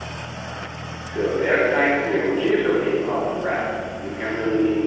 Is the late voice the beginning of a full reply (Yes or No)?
No